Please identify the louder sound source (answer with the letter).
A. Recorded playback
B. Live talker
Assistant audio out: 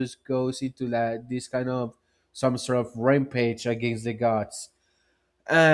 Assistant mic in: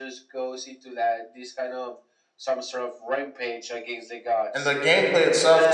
B